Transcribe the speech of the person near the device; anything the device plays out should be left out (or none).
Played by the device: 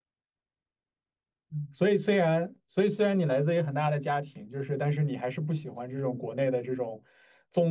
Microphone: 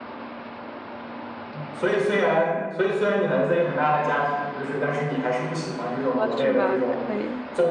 说是吧？可以，